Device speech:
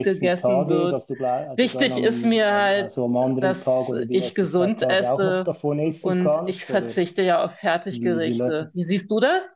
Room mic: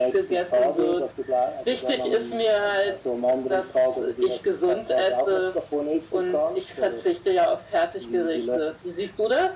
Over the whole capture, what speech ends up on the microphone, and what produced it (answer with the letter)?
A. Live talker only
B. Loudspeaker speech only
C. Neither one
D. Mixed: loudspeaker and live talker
B